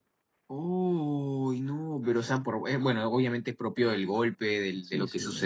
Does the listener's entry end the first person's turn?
No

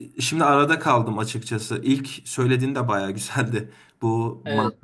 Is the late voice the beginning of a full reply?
No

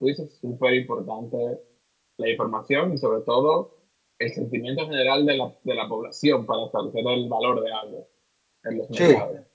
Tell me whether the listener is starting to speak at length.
Yes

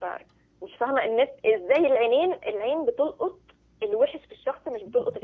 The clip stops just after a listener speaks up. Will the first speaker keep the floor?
Yes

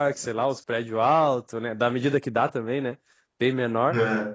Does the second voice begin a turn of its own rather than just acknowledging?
No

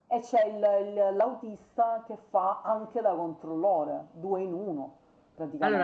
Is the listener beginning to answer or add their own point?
Yes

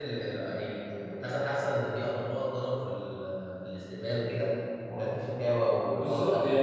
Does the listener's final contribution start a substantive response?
Yes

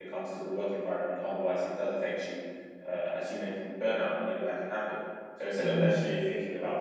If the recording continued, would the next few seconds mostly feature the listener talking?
No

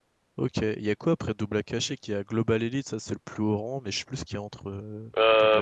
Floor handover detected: Yes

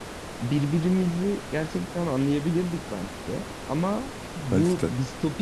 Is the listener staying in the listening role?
Yes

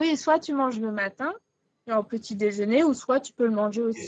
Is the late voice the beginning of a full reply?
Yes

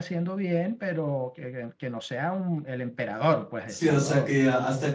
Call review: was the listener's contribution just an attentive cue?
No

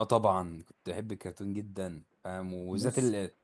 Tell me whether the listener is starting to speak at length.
No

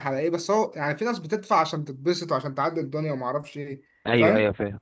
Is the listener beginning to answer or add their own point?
Yes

